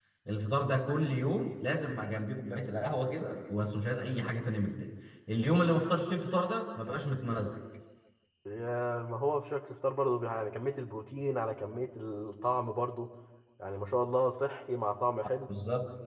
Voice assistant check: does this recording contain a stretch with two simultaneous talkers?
No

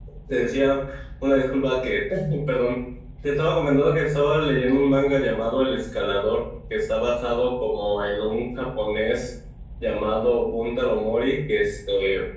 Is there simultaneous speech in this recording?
No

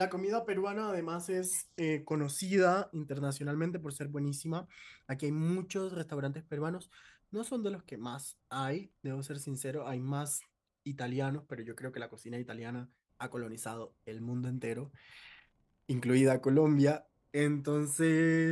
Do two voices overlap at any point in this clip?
No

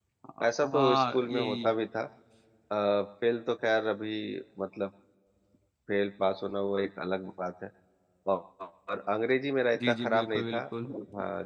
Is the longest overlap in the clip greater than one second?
Yes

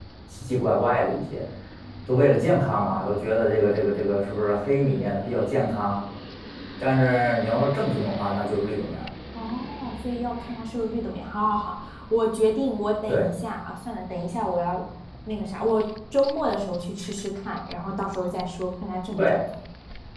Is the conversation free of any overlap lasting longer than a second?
Yes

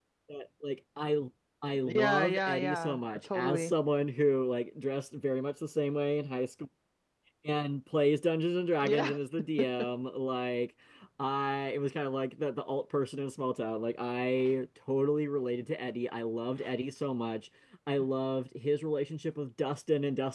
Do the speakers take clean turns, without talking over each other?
No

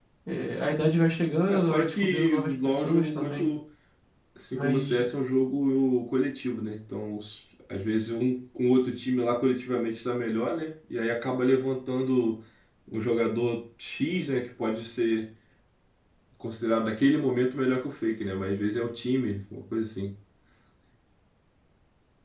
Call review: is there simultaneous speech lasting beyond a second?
Yes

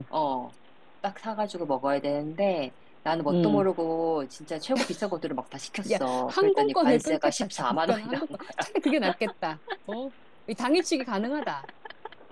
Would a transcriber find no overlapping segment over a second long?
No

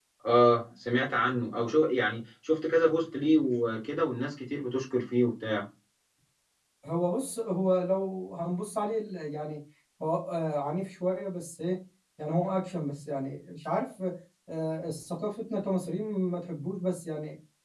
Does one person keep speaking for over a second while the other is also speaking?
No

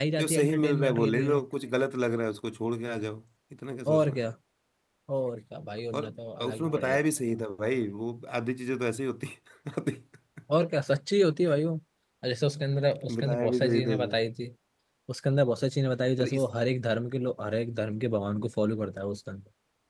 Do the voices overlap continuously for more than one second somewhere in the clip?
Yes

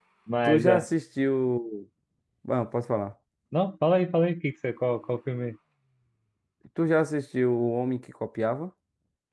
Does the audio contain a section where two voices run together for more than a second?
No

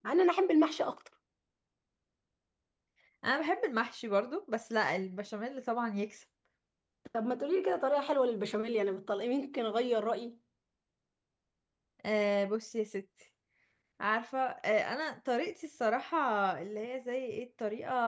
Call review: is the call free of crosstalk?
Yes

